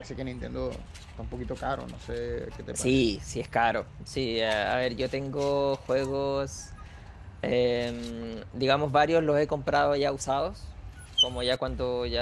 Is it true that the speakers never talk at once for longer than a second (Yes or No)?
Yes